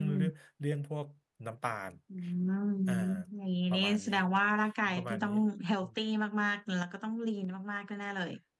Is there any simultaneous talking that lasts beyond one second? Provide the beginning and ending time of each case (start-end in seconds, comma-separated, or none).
none